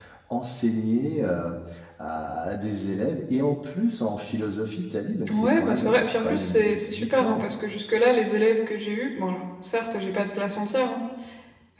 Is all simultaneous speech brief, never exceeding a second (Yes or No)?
No